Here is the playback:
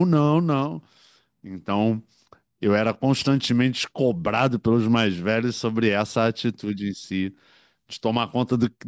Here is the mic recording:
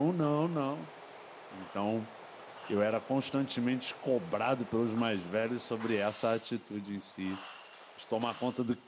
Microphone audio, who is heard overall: echo only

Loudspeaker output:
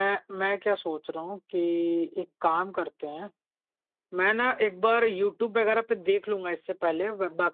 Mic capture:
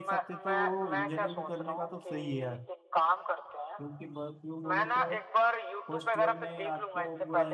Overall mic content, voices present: both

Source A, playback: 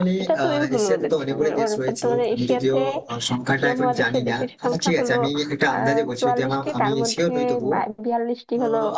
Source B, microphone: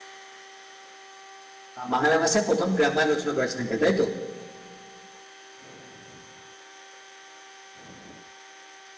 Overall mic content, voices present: user only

